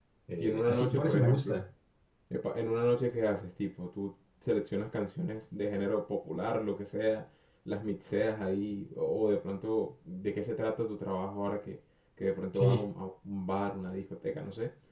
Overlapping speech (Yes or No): Yes